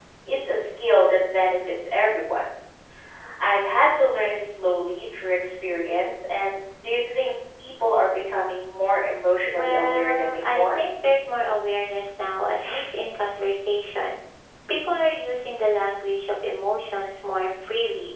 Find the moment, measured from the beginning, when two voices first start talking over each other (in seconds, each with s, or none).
9.5 s